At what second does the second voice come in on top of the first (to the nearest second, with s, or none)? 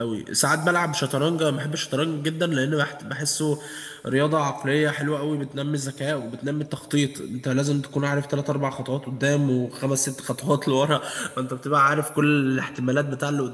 none